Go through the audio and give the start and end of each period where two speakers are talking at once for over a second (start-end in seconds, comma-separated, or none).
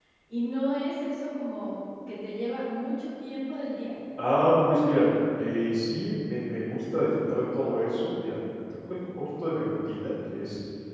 none